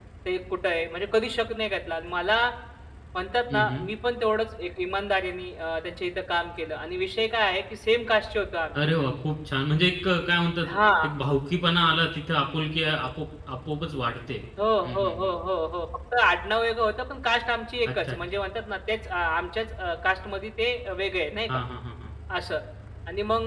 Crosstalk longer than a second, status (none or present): none